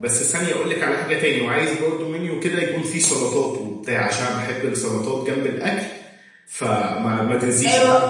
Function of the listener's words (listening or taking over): taking over